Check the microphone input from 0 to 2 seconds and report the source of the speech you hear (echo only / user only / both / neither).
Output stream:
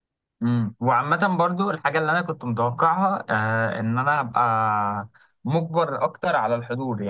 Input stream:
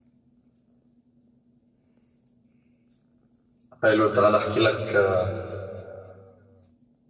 neither